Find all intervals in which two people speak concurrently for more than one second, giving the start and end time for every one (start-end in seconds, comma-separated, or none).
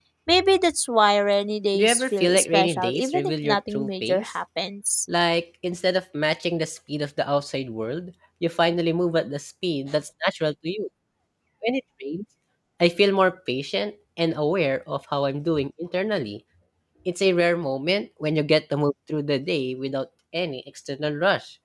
1.7-4.3